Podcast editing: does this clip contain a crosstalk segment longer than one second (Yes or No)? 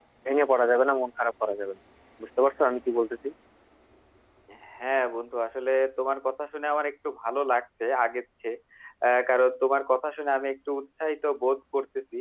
No